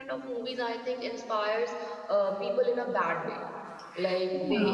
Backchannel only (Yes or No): Yes